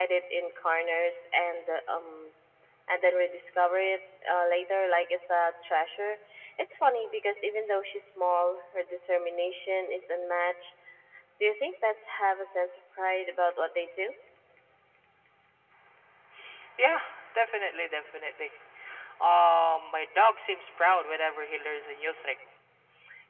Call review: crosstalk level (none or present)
none